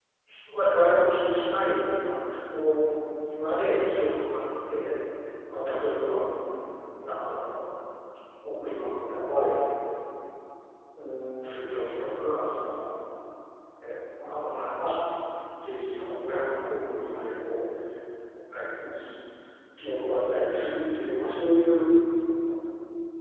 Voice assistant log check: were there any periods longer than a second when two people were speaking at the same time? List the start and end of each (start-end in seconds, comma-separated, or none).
none